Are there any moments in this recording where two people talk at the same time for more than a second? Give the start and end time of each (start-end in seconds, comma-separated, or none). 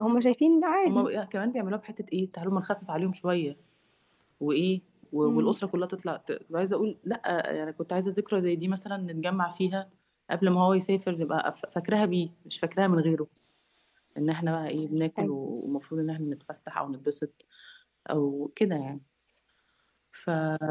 none